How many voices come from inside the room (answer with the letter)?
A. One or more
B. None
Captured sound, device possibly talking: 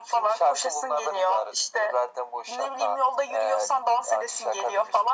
B